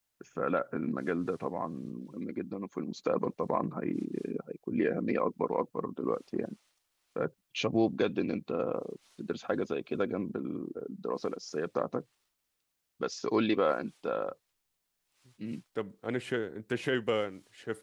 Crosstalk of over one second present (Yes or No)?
No